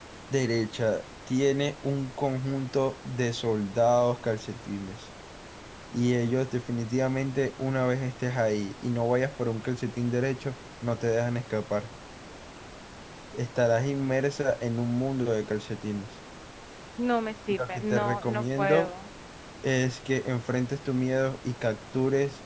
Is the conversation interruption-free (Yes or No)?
No